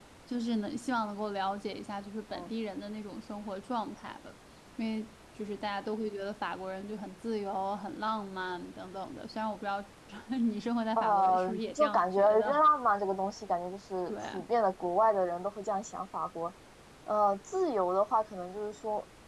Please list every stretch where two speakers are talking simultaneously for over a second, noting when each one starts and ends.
11.0-12.6

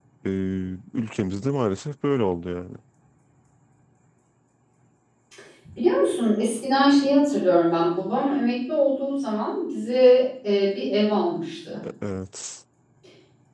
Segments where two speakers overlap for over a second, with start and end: none

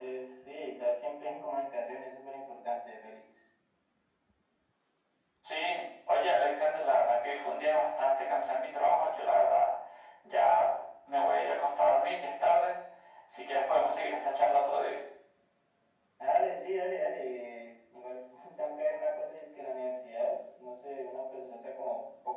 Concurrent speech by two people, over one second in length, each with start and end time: none

